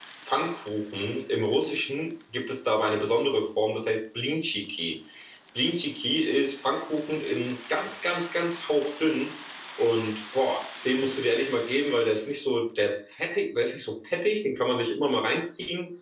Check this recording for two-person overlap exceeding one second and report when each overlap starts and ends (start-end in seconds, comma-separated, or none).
none